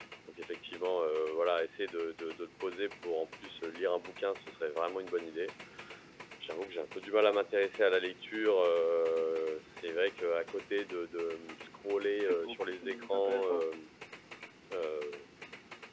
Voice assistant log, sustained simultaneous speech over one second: present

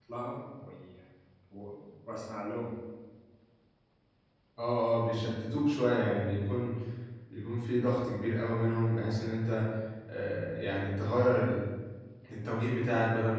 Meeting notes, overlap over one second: none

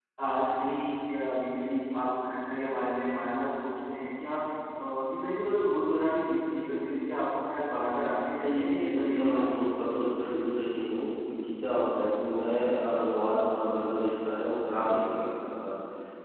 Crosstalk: present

